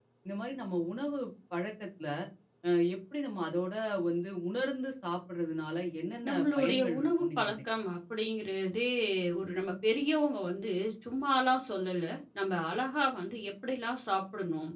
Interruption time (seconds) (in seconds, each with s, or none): 6.2 s